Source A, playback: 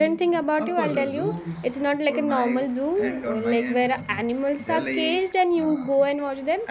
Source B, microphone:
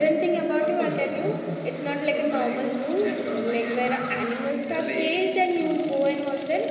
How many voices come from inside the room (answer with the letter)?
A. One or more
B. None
B